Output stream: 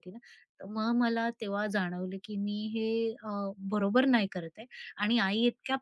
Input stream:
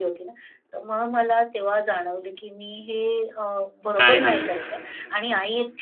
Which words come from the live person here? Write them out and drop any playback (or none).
काय खाल्लं?